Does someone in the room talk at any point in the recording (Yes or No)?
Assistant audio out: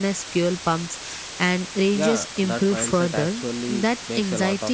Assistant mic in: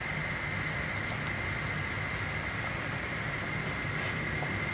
No